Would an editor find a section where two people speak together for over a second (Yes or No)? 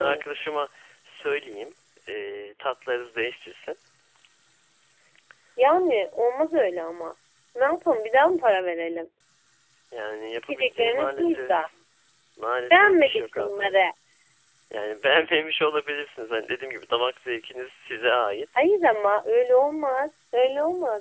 Yes